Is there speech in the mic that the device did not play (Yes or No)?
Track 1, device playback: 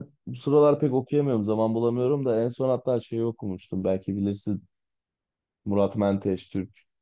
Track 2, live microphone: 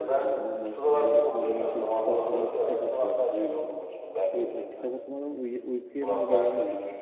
Yes